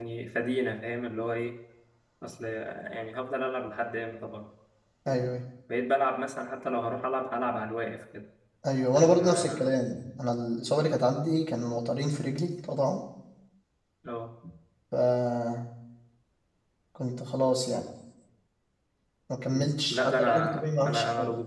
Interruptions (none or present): present